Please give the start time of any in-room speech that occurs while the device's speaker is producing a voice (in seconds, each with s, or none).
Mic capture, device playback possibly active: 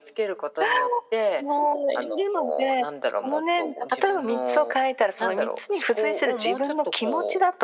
none